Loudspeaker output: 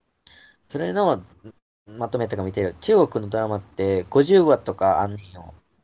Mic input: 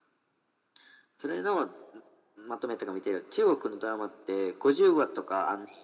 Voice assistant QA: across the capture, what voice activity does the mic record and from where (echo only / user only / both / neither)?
echo only